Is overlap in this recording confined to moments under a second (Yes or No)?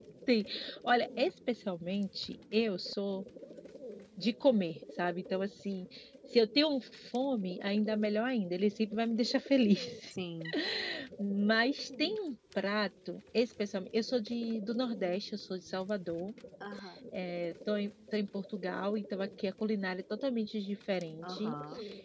Yes